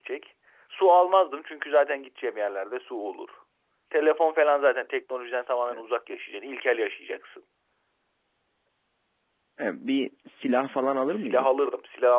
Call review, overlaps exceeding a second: none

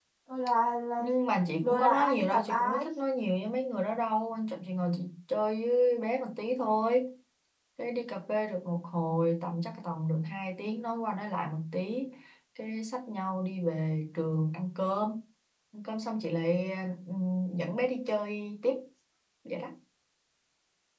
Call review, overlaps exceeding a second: present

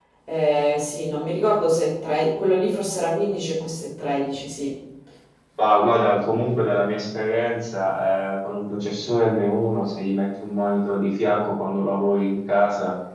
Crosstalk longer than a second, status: none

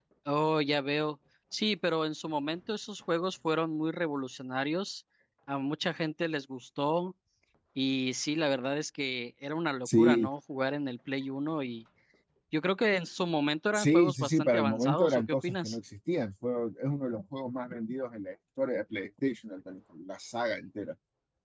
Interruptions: present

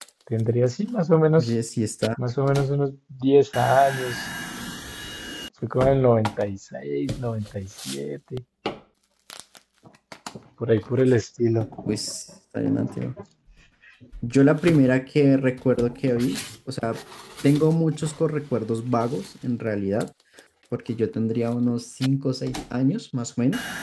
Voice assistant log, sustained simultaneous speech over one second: none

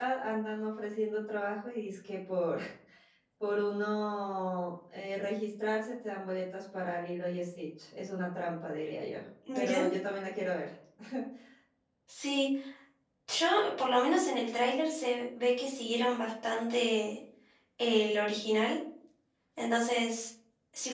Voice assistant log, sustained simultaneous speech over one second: none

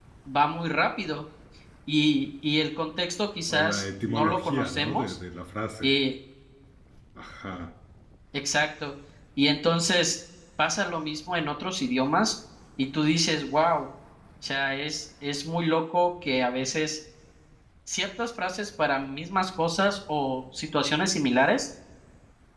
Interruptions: present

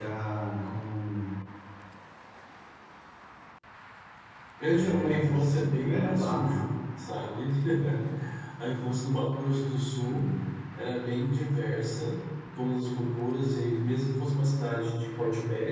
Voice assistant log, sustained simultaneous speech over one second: present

